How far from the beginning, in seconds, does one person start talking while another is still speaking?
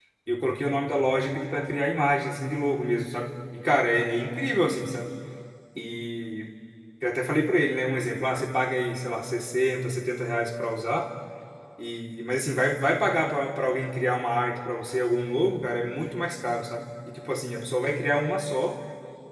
none

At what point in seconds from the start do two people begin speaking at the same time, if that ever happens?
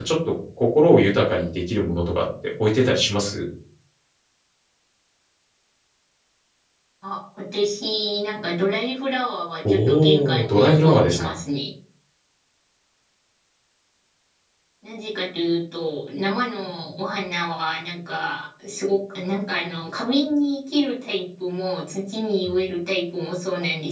9.7 s

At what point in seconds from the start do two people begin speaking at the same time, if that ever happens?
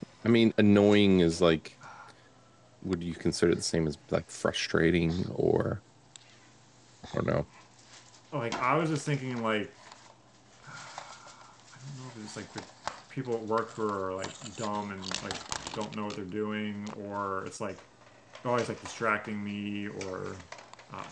none

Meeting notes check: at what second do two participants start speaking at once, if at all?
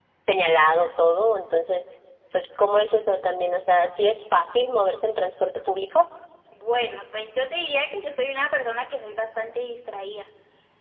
none

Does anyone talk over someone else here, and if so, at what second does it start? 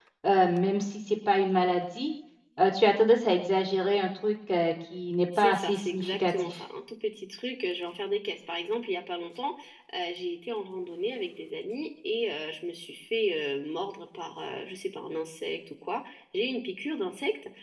5.3 s

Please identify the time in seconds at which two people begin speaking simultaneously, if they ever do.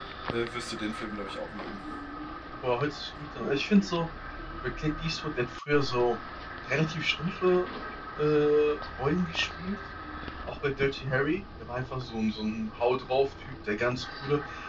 none

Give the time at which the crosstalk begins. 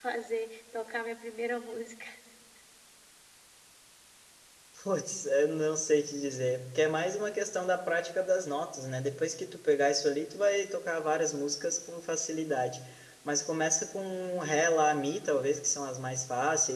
none

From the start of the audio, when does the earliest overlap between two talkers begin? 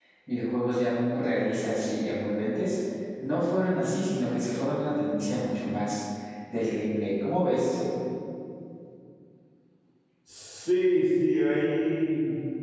none

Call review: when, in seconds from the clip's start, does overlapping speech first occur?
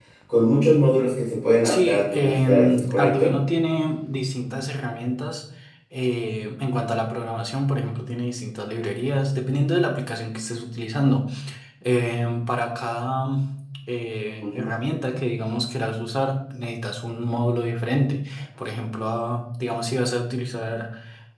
1.6 s

